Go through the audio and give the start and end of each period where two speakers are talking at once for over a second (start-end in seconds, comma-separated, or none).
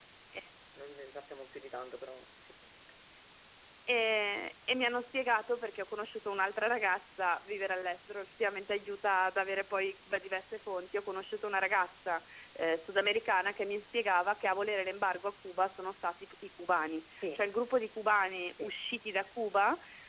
none